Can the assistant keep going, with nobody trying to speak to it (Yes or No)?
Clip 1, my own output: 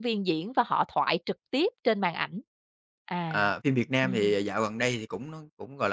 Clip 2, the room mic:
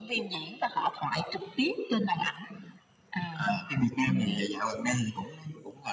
Yes